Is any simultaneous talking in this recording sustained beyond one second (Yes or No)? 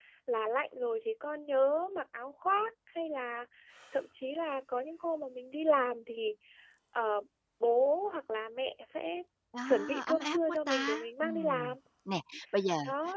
Yes